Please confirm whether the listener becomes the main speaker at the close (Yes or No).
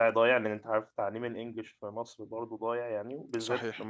No